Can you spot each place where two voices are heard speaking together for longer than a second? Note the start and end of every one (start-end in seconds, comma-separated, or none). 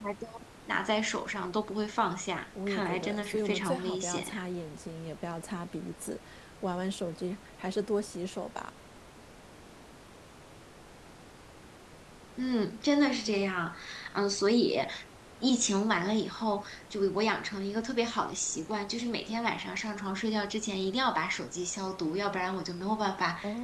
2.7-4.3